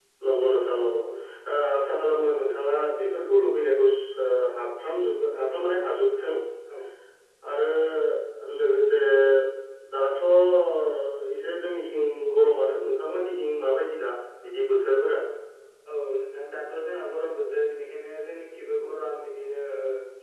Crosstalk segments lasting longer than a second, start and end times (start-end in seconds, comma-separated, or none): none